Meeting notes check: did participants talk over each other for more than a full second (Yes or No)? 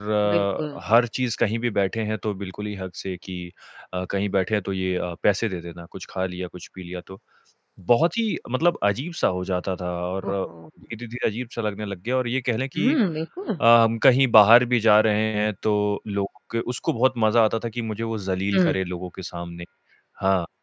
No